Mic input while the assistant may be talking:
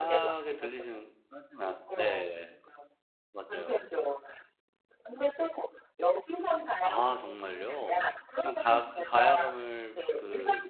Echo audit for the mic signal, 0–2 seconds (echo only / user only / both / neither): both